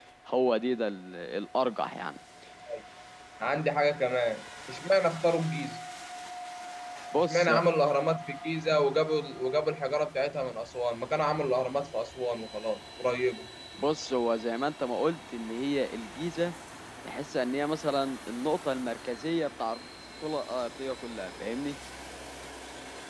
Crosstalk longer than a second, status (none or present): none